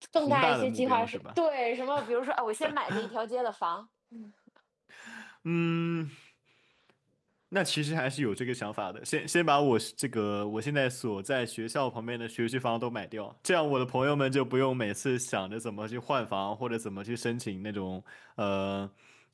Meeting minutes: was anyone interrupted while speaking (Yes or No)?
Yes